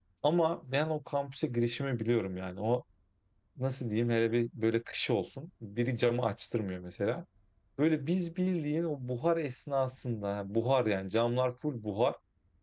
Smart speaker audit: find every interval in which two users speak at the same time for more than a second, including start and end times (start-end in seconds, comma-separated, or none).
none